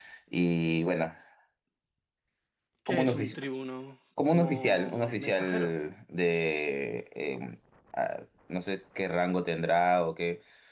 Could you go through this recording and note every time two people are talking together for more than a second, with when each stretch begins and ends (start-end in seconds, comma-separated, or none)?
4.3-5.8